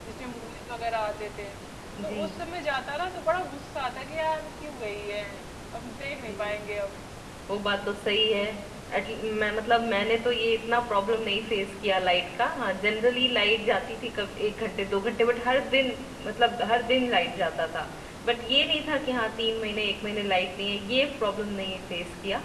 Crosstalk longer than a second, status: none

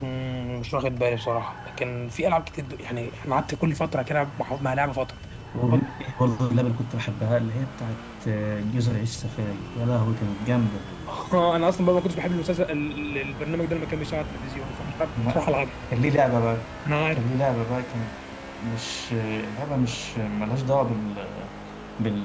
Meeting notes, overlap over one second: none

